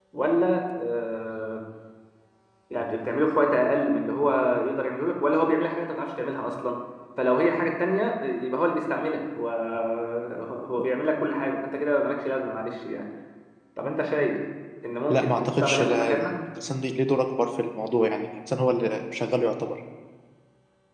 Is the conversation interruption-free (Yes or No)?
No